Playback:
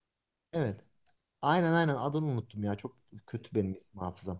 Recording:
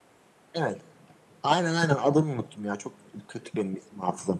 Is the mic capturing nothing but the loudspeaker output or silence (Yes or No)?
Yes